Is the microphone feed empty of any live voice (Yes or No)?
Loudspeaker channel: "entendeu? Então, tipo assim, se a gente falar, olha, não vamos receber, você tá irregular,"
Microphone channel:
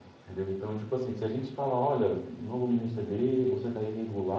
Yes